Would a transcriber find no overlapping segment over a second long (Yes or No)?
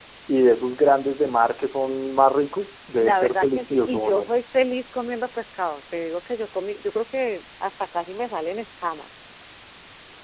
No